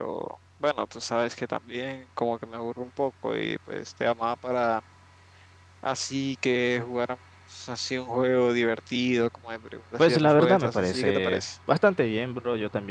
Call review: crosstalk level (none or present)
present